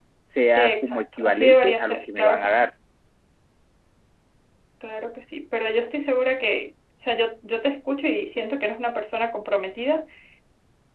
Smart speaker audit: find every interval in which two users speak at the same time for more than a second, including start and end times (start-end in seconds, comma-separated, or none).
0.6-2.5